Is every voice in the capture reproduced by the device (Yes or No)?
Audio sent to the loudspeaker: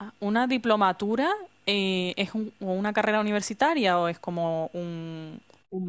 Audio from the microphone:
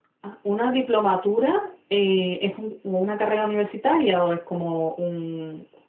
Yes